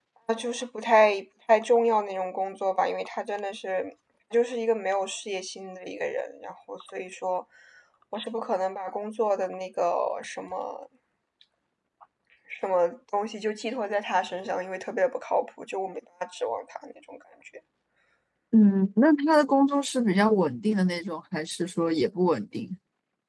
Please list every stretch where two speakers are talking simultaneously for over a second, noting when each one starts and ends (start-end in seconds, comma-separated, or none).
none